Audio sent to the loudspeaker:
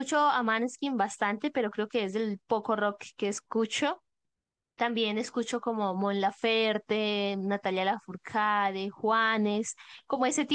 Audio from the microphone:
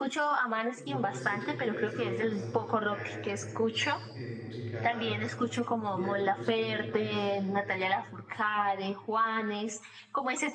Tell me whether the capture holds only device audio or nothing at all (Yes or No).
No